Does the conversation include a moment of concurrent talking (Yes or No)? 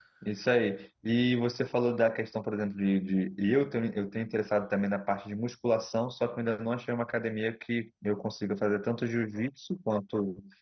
No